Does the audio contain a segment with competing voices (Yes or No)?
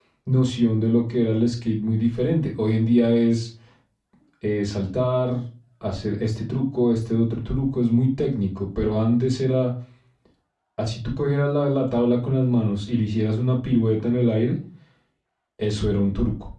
No